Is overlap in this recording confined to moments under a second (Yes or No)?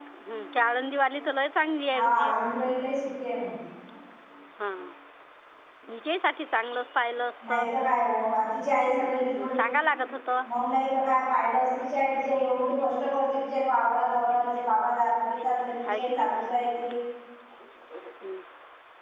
Yes